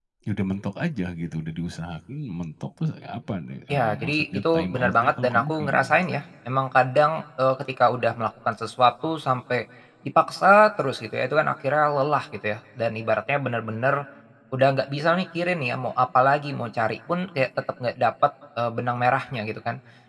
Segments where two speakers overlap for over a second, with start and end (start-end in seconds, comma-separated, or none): 3.7-6.0